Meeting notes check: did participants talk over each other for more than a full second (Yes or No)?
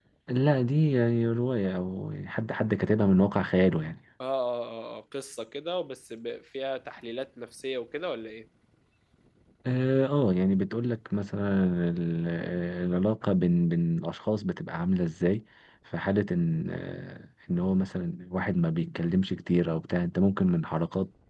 No